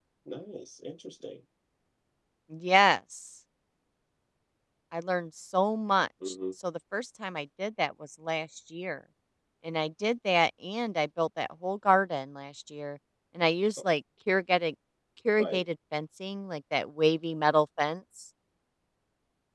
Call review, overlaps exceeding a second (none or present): none